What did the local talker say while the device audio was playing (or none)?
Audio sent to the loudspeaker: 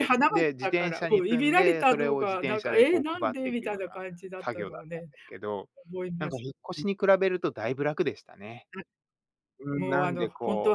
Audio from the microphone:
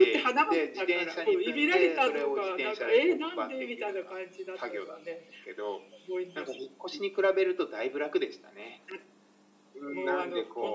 none